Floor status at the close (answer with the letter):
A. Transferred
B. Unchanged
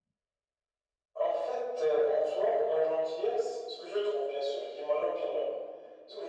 B